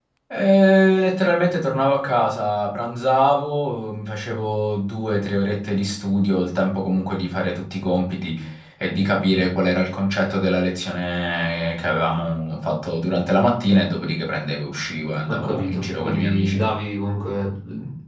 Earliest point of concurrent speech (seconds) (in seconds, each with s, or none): 15.3 s